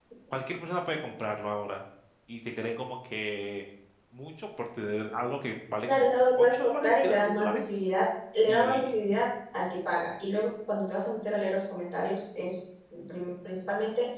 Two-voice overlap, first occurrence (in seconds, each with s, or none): 5.9 s